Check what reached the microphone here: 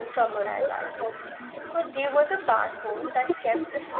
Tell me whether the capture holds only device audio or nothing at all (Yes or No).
No